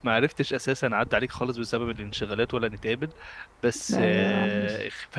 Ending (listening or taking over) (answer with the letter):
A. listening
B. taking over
A